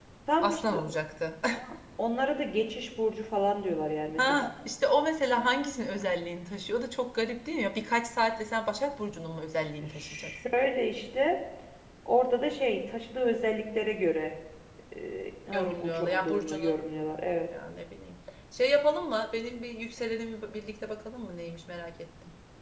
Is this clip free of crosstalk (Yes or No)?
No